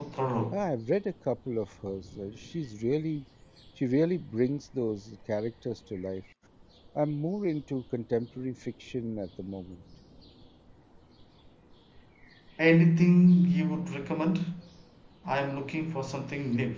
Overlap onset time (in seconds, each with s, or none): none